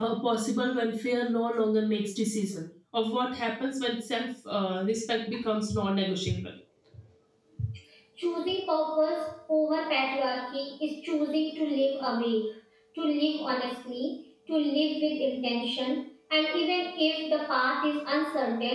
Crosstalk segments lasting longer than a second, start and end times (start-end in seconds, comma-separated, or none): none